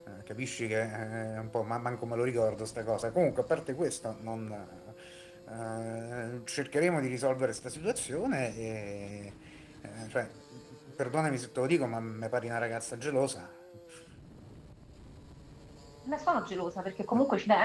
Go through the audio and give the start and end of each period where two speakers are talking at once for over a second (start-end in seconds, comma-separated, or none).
none